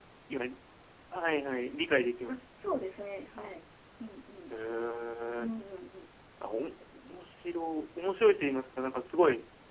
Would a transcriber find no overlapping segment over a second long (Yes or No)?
Yes